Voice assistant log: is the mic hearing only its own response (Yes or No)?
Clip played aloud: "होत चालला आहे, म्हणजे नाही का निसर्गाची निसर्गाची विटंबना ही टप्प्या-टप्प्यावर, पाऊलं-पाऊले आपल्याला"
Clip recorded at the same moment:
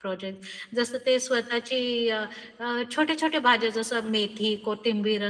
No